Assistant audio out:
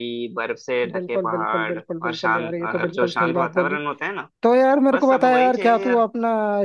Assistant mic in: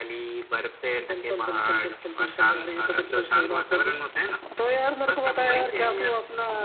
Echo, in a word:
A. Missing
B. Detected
B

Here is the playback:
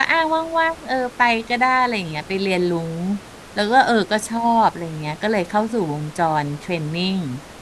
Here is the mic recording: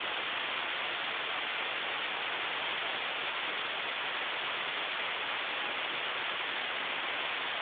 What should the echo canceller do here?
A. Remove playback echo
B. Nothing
B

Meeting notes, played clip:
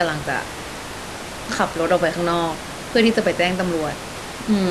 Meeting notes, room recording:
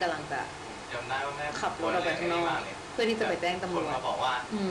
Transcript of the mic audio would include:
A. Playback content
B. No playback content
A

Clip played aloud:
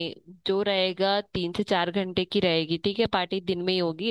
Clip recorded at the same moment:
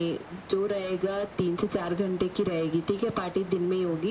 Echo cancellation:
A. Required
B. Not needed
A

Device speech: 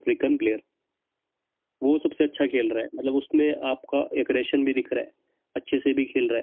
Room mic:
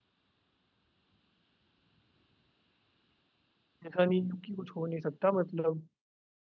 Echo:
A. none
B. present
A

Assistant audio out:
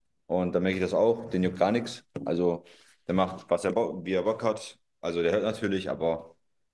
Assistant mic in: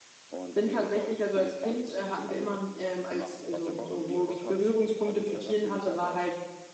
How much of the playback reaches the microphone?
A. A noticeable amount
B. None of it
A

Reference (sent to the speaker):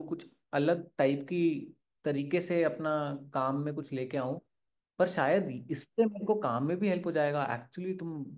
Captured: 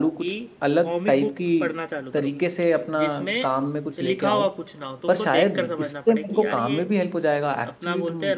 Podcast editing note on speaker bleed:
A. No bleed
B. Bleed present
B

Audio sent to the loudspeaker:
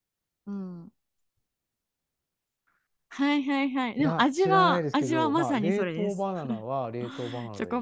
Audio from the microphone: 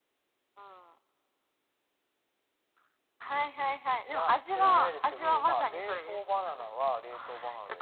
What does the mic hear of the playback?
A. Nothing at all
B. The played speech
B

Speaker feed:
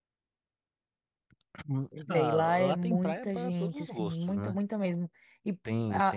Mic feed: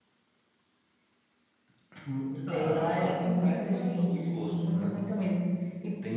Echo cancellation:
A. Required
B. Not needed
A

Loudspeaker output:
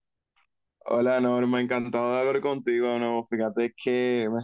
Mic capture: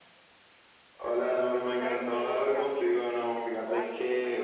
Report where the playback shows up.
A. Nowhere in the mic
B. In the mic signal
B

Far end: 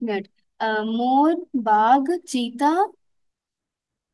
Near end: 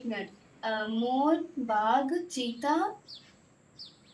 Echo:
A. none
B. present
B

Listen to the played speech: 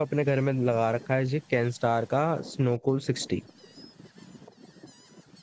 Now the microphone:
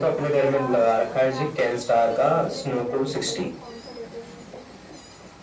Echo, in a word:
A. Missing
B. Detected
B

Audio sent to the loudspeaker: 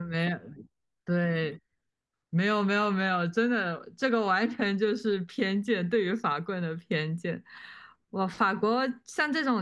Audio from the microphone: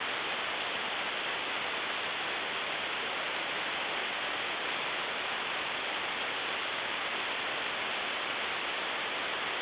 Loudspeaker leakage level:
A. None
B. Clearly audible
A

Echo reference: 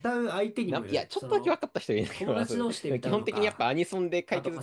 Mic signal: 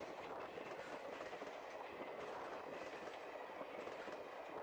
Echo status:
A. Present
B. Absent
B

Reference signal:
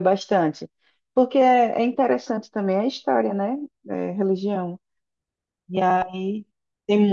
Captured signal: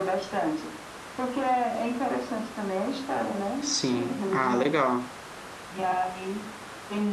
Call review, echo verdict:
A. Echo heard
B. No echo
A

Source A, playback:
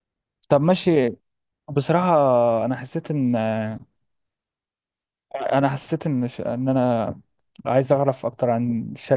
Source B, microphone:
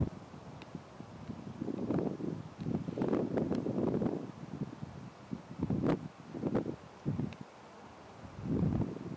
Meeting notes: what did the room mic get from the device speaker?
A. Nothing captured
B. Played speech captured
A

